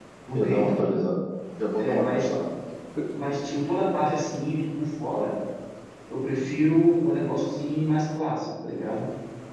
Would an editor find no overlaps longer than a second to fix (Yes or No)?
Yes